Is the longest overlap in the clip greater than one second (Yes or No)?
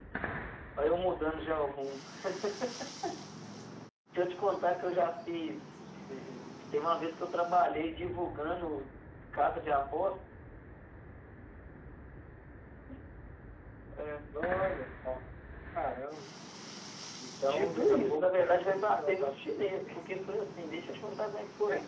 Yes